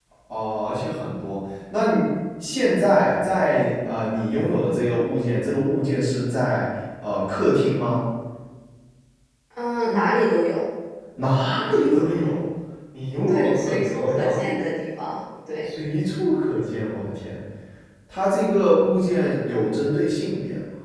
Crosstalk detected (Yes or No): Yes